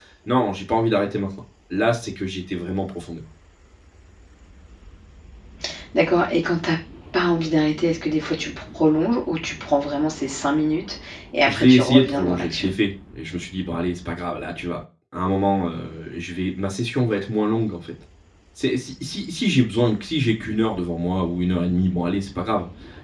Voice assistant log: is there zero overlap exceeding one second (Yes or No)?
No